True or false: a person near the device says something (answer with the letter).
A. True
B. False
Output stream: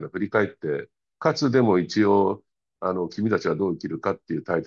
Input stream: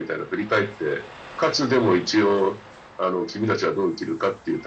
B